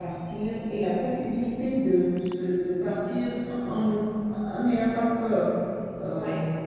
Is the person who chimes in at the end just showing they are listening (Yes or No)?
Yes